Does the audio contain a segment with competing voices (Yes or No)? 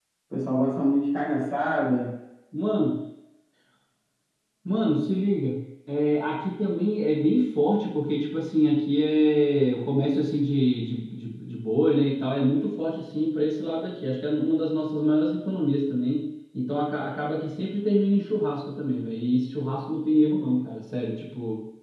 No